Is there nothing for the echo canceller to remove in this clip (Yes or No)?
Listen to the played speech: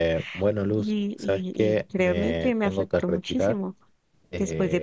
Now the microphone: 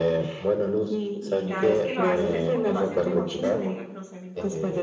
No